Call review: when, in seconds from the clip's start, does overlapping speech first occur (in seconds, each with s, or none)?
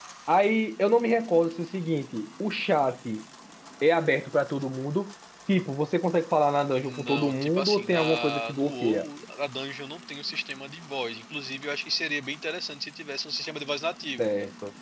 6.8 s